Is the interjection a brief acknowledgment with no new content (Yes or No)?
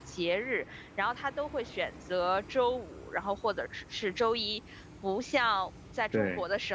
Yes